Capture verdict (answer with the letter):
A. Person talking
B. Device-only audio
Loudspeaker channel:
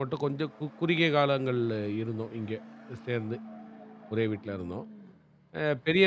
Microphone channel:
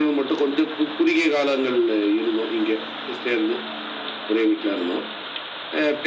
B